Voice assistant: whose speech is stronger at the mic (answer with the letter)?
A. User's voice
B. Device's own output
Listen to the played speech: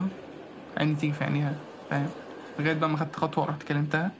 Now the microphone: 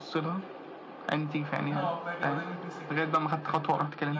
B